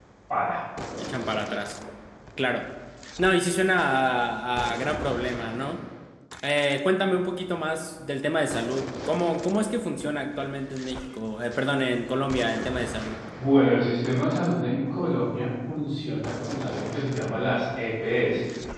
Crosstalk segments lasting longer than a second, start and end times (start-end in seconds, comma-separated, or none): none